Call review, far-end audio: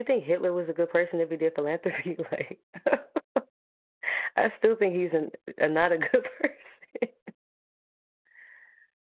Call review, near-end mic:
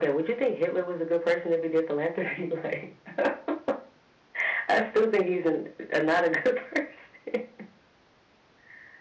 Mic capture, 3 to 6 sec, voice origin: echo only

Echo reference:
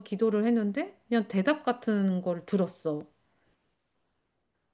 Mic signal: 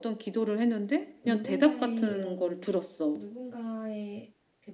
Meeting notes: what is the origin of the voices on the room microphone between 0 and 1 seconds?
echo only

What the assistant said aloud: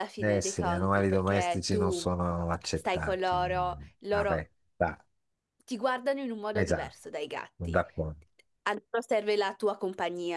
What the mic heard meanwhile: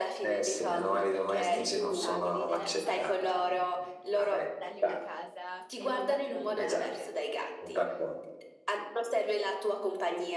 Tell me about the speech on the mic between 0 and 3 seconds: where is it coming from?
both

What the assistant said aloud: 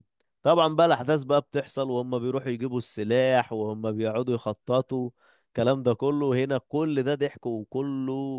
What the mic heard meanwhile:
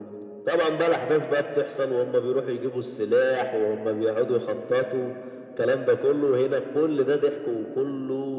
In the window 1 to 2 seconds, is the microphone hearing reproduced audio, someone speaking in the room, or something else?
echo only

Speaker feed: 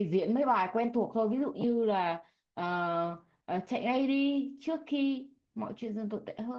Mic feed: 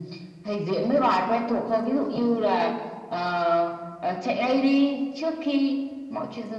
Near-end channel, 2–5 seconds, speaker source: echo only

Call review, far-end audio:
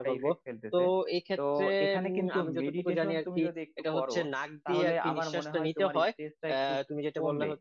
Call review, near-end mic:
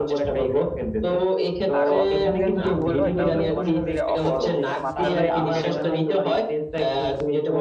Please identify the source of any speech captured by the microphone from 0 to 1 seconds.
echo only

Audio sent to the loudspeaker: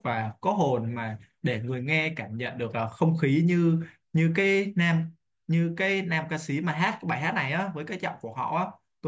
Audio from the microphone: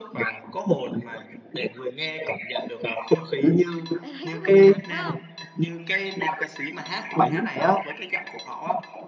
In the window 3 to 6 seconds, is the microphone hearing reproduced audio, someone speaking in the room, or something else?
both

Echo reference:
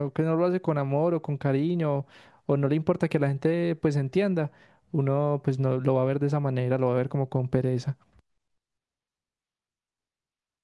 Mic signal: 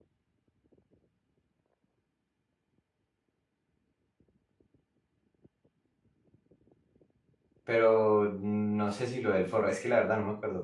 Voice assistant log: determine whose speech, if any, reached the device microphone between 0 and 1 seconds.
neither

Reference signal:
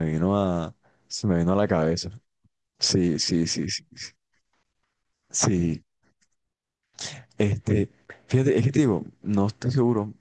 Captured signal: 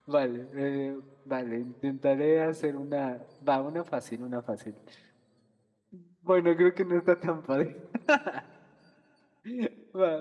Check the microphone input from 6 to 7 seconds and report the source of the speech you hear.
user only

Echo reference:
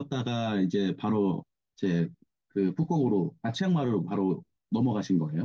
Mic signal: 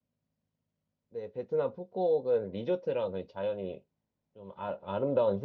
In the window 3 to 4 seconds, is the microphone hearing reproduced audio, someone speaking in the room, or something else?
user only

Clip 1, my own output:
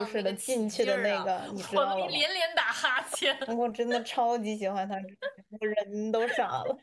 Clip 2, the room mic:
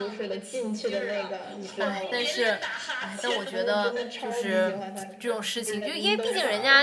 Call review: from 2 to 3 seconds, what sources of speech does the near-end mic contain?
both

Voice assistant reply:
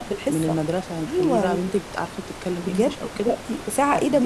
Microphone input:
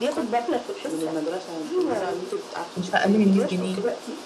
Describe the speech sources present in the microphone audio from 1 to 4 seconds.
both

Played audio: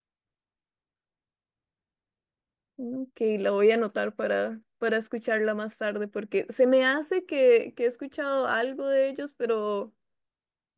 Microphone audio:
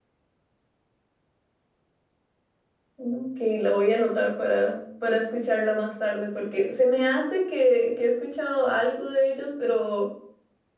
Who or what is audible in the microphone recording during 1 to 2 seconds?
neither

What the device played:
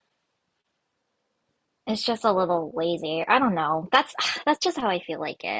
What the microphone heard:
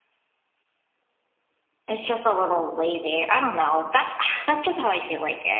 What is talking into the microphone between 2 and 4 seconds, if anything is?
echo only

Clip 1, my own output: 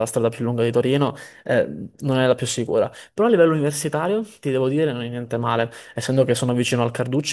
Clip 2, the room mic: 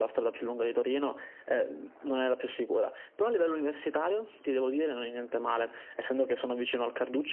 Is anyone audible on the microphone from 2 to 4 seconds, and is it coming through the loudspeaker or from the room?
echo only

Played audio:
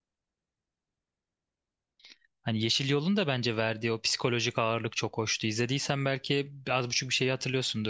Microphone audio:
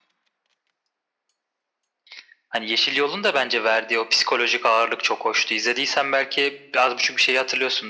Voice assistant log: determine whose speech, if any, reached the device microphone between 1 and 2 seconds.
neither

